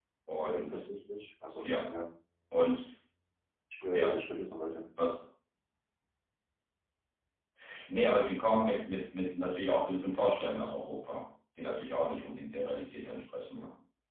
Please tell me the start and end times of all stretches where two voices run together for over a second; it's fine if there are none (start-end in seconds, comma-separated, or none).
none